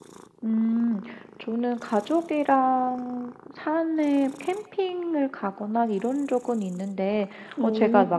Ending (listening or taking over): listening